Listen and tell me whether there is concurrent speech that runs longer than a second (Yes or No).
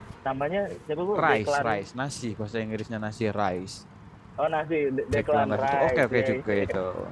Yes